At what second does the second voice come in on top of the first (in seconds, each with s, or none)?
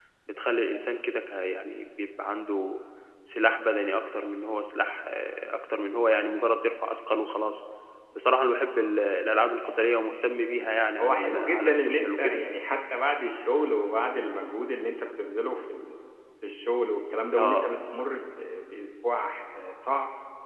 11.0 s